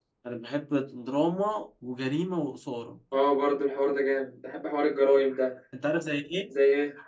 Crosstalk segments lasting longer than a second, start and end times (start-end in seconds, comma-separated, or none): none